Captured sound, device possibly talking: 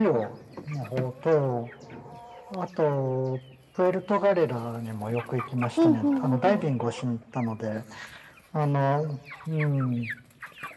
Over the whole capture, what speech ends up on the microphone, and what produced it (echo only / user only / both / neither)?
both